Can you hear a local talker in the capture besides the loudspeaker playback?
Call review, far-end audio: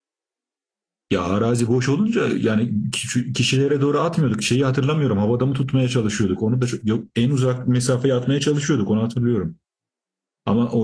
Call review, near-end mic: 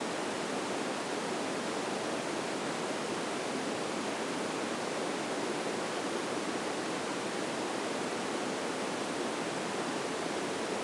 No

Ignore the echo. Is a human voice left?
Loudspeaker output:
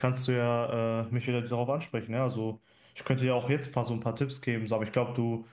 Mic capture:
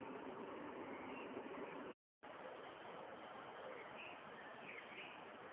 No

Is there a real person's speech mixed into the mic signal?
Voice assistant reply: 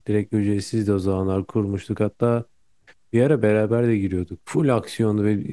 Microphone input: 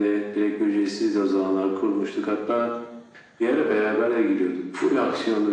No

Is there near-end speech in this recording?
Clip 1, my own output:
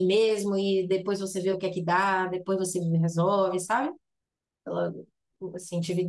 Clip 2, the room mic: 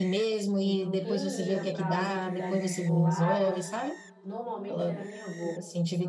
Yes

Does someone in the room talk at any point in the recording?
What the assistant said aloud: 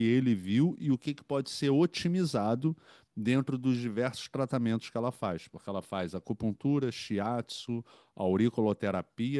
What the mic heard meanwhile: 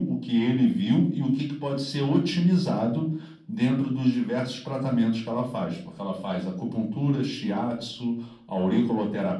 No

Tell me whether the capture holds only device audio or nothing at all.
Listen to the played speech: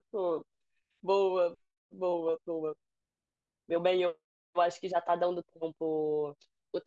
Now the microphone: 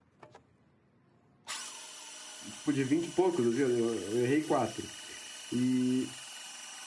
No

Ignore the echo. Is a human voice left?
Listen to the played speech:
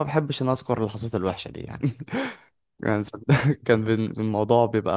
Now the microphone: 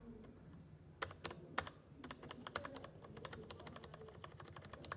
No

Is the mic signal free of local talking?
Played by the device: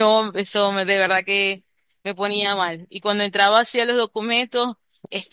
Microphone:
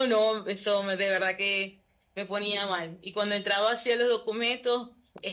Yes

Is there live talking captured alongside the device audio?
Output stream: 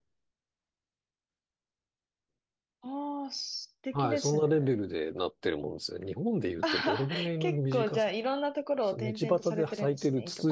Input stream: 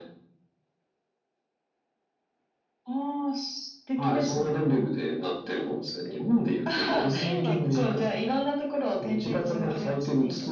Yes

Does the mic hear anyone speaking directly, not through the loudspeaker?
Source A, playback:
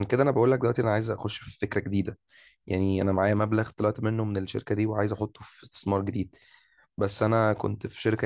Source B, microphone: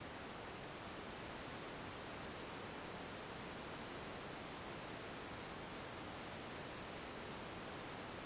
No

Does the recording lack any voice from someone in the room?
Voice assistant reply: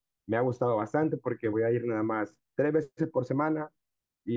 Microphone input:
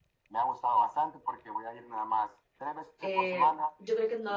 No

